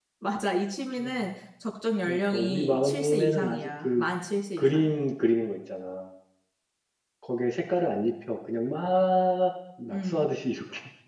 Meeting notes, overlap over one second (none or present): present